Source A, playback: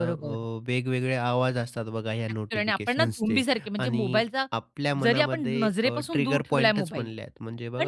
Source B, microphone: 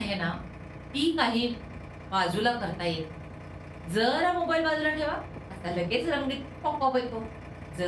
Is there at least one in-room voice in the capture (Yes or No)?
Yes